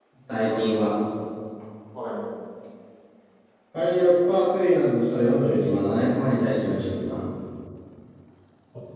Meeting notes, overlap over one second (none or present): none